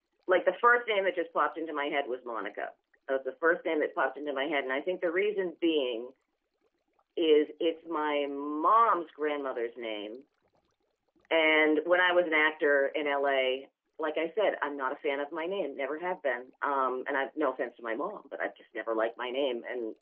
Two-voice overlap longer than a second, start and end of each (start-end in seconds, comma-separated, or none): none